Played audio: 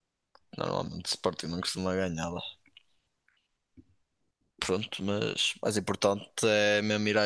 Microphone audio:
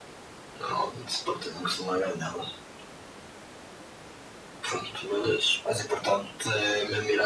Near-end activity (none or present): none